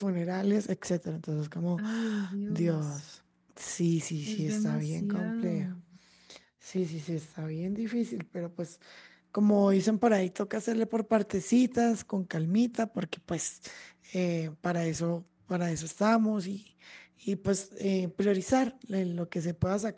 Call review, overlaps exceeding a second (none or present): present